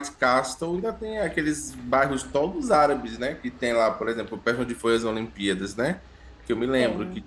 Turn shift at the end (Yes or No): No